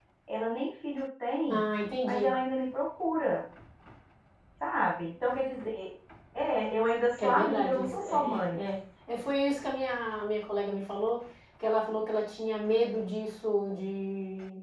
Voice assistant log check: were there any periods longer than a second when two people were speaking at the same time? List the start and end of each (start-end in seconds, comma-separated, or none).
7.2-8.6